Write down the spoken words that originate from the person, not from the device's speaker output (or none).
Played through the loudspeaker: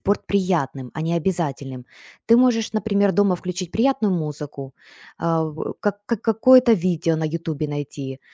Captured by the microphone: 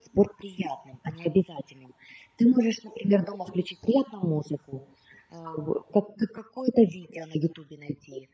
none